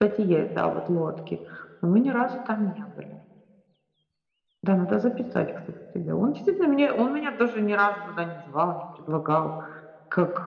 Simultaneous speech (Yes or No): No